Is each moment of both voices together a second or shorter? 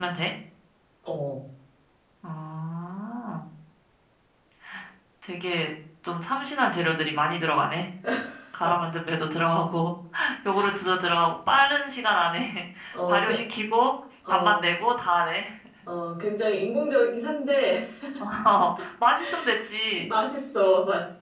Yes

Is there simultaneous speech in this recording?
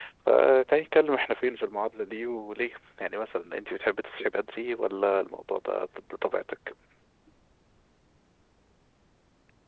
No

